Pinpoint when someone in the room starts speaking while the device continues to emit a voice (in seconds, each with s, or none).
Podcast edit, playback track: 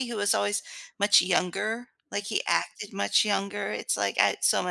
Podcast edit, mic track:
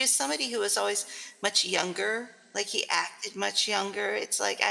none